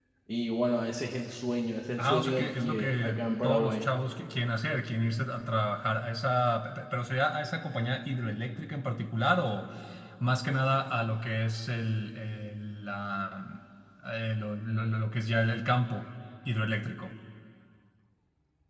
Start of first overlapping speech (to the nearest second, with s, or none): 2 s